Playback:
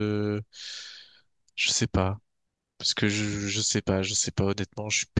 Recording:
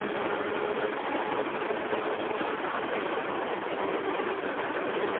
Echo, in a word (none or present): none